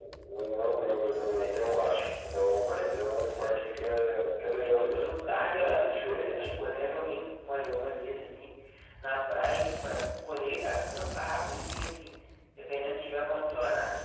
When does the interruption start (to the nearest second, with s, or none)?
5 s